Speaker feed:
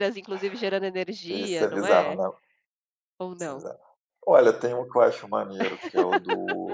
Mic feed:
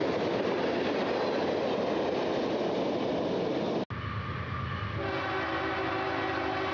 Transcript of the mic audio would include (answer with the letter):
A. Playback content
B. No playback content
B